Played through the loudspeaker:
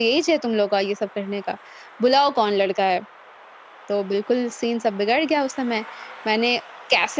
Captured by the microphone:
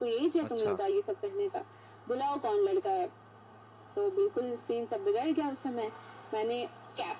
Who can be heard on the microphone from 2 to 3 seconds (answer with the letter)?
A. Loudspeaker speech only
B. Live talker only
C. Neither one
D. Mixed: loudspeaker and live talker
A